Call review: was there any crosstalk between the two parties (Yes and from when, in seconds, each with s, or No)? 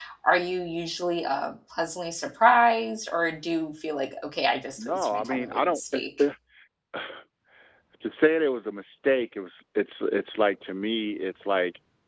Yes, from 4.8 s